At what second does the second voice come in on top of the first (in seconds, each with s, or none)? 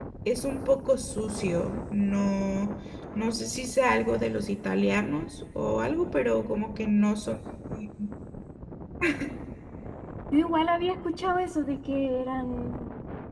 none